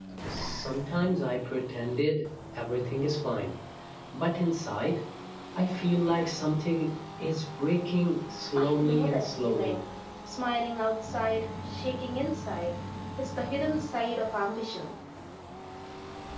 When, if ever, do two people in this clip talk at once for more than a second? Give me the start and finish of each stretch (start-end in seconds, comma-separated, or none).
8.6-9.8